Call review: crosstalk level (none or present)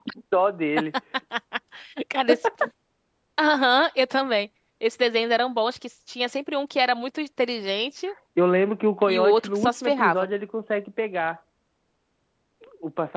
present